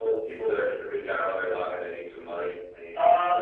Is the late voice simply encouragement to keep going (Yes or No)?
No